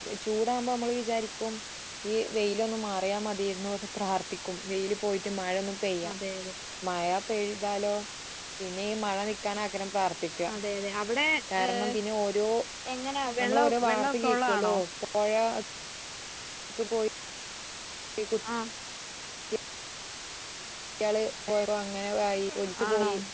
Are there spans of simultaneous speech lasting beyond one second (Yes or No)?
Yes